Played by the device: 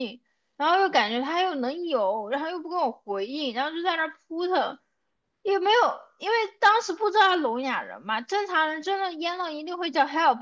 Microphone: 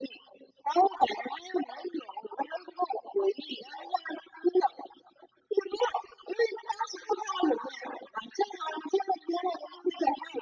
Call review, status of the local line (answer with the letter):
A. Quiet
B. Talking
A